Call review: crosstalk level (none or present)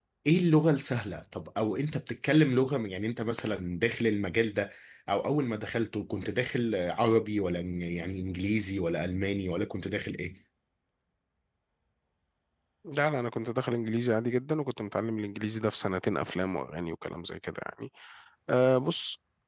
none